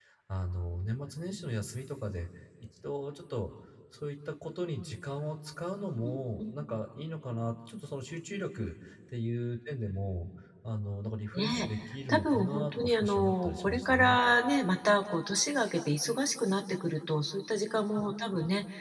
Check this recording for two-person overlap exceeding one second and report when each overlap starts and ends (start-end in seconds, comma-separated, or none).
12.1-14.2